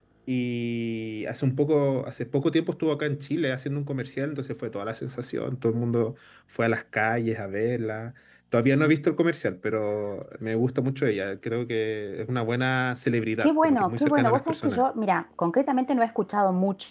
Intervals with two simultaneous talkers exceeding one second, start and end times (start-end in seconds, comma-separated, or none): 13.4-14.8